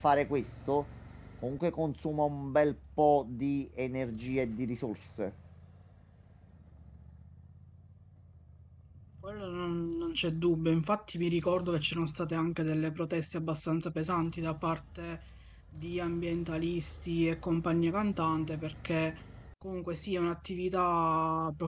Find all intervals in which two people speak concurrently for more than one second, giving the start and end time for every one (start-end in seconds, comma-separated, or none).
none